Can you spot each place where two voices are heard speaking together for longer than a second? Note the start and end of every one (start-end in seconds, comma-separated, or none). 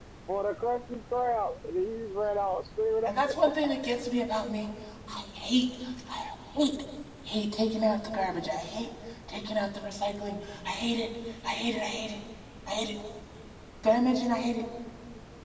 none